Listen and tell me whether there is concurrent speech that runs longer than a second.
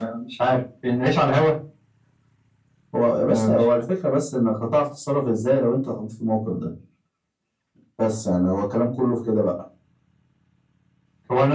No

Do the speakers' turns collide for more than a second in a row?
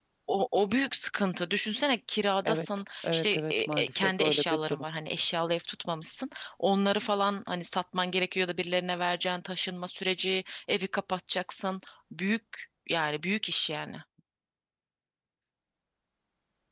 Yes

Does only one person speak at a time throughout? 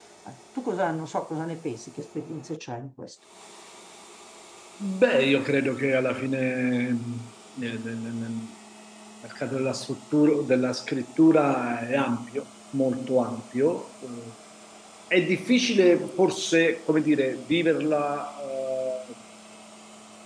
Yes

